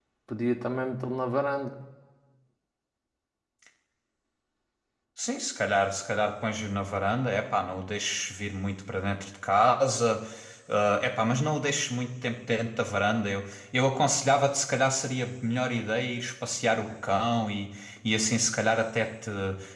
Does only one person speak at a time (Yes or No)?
Yes